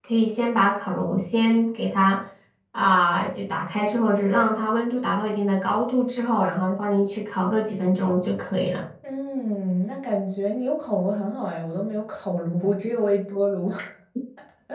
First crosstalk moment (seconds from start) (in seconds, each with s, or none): none